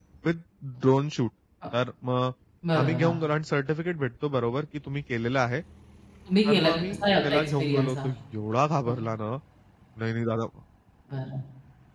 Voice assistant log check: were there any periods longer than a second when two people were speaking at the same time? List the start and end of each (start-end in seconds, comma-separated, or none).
6.4-8.1